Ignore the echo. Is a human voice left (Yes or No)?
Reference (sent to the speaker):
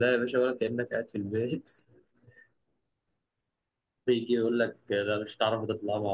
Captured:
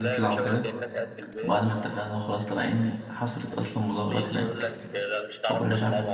Yes